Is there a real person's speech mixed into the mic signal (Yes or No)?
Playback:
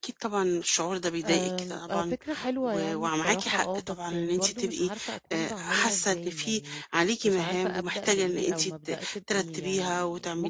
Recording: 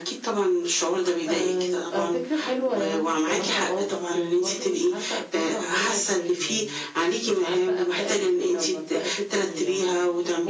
No